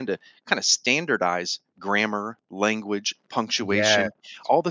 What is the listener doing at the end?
listening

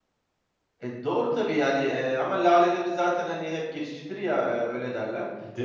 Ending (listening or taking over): listening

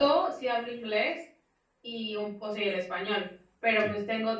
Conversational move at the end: listening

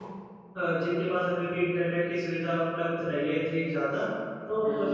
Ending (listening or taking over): listening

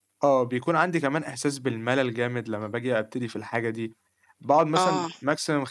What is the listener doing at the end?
listening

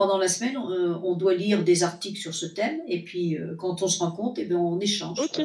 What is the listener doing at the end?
taking over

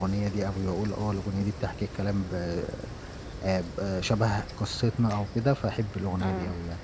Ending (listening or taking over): taking over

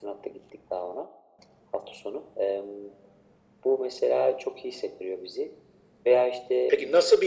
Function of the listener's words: taking over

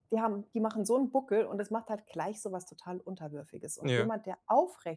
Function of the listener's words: listening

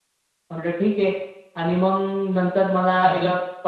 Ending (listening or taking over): listening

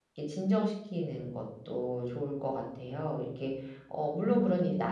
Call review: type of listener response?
listening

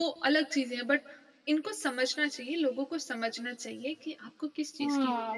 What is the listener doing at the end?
taking over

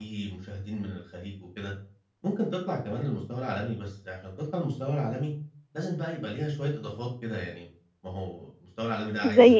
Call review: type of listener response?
listening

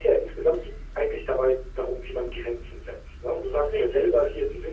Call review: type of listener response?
listening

